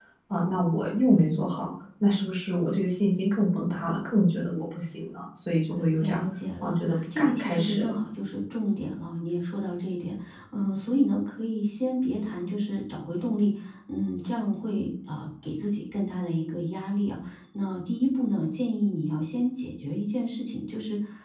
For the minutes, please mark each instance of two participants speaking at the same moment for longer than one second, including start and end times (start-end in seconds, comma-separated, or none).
6.6-7.9